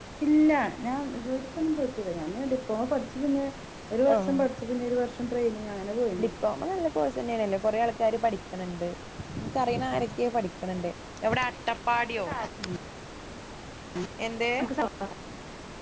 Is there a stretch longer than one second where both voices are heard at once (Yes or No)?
No